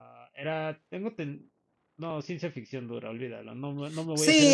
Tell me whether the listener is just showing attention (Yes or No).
No